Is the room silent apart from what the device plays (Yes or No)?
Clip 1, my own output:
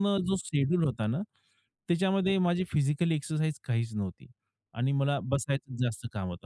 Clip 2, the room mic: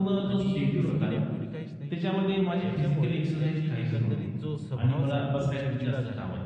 No